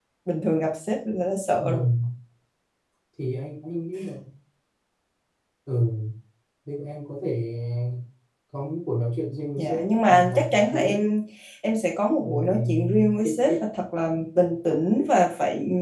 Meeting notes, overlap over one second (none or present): present